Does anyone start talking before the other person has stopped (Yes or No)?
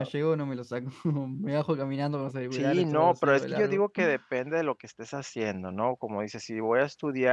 Yes